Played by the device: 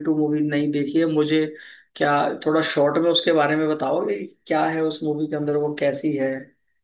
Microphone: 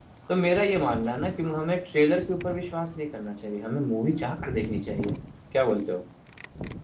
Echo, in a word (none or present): none